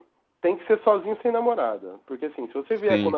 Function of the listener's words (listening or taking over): listening